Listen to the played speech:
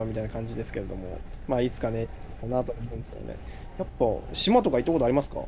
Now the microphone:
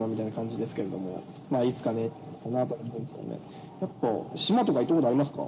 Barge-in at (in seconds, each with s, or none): none